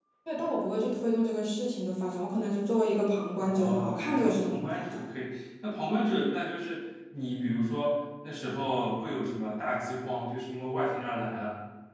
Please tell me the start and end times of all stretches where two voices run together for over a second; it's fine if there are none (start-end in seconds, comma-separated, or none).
3.4-5.0